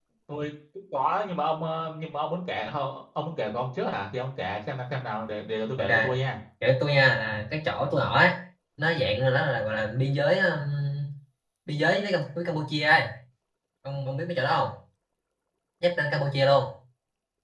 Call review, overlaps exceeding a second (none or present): none